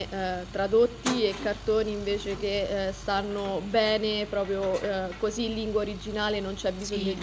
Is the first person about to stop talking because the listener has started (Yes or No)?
No